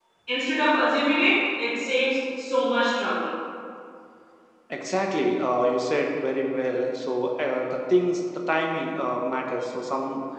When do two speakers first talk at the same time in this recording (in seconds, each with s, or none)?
none